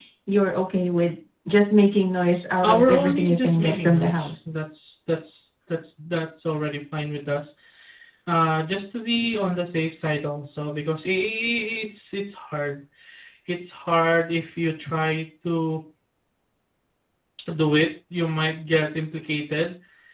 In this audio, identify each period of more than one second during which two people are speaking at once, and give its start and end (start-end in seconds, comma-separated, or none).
2.6-4.5